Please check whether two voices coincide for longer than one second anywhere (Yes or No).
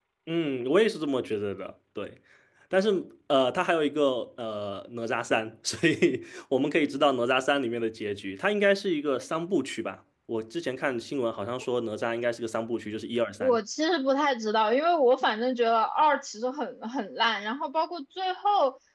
No